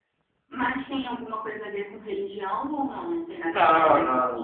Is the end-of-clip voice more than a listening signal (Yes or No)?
Yes